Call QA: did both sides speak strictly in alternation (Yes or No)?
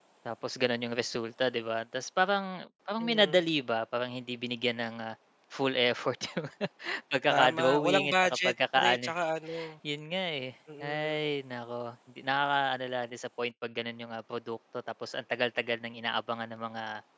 No